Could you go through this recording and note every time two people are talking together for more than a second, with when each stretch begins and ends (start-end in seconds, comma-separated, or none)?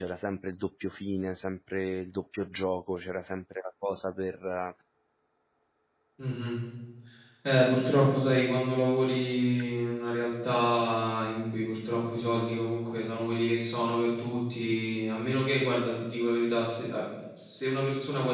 none